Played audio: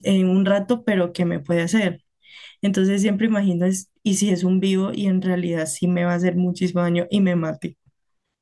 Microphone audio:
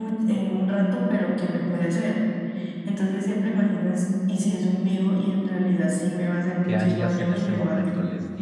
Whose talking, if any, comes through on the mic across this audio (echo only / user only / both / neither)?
both